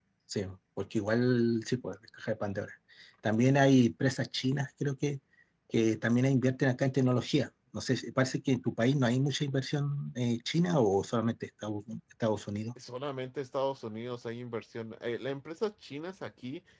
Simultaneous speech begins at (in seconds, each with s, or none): none